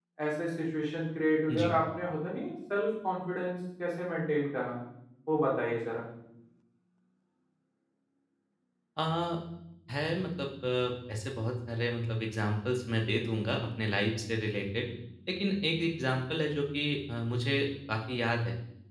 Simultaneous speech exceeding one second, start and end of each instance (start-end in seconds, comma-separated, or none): none